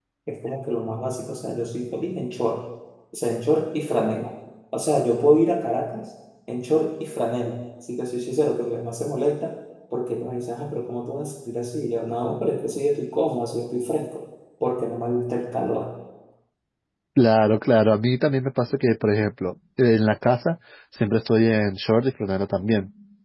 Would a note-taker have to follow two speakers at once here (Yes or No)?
No